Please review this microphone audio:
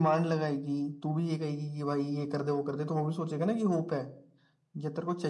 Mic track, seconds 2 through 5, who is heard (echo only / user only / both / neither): echo only